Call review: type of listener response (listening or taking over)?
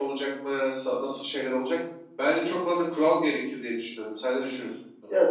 taking over